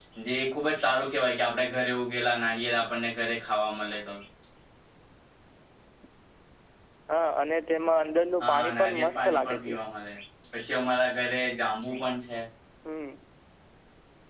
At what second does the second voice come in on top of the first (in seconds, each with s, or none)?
8.4 s